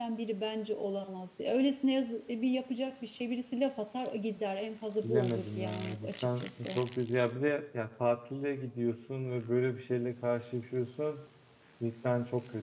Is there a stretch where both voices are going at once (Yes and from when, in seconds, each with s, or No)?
Yes, from 5.0 s